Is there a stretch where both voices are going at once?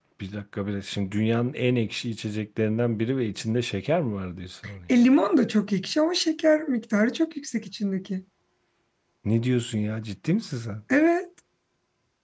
No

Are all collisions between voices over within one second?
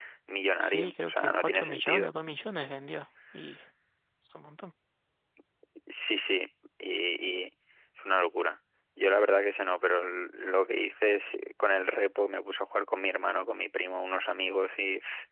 No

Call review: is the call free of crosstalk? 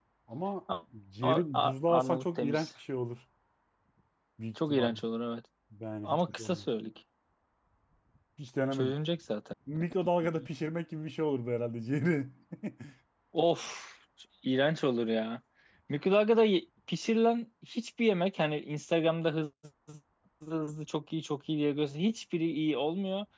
No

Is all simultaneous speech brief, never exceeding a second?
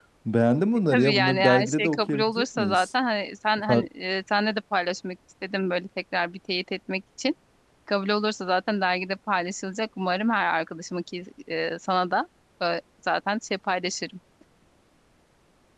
No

